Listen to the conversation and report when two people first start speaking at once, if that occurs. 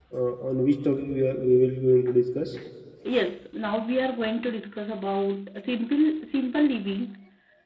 none

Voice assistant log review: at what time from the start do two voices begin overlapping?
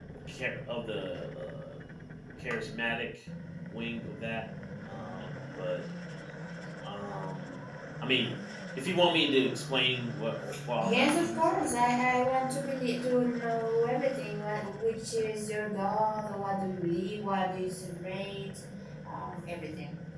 10.8 s

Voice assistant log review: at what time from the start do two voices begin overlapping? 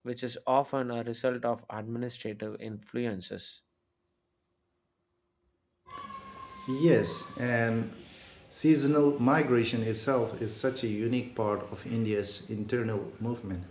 none

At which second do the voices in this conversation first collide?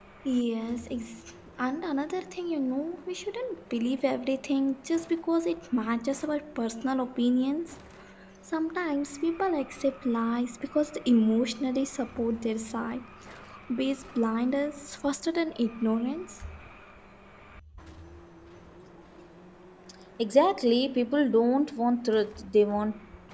none

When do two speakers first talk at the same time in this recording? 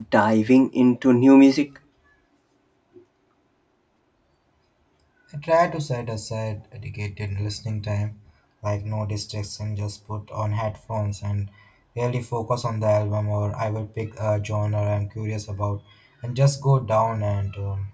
none

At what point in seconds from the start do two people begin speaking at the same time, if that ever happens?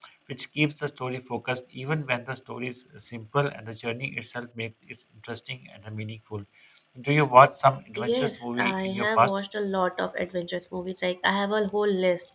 8.0 s

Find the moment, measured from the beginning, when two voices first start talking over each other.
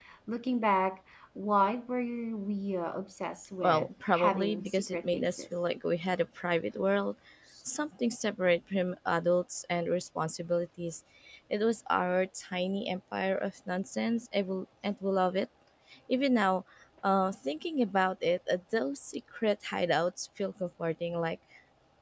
3.6 s

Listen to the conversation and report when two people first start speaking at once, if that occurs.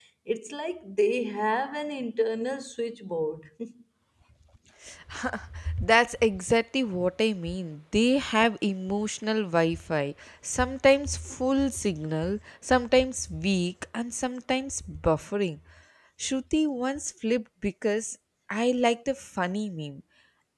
none

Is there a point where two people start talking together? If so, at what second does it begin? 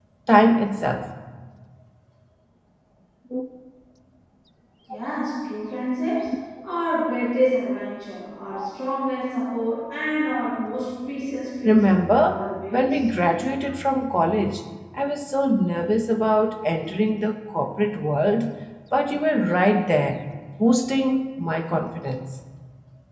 11.7 s

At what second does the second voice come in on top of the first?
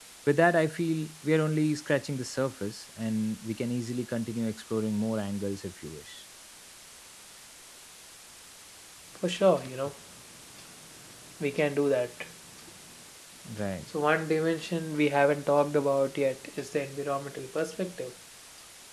none

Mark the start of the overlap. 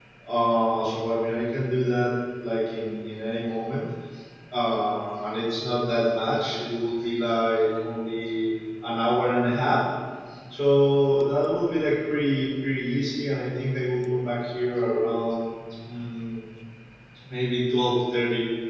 none

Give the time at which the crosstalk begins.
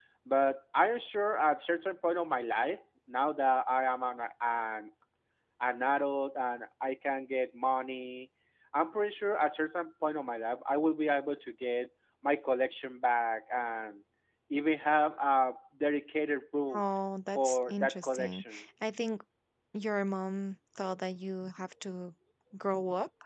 17.4 s

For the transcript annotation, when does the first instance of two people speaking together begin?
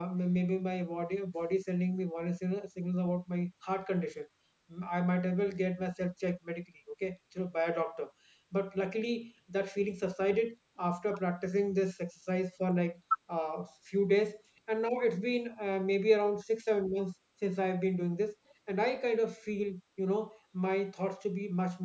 none

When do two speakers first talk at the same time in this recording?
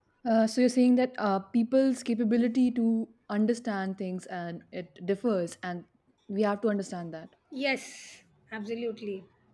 none

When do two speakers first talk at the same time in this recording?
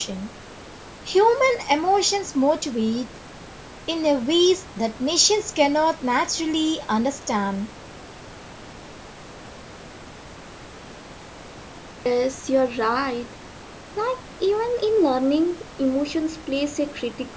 none

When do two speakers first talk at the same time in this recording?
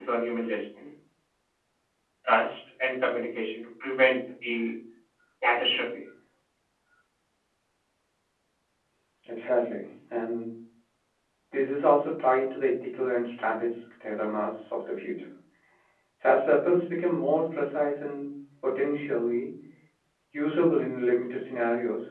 none

